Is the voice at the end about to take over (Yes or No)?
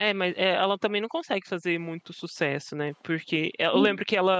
No